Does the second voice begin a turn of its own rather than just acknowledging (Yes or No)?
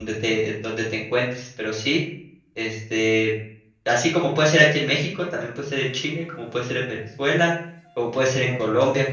No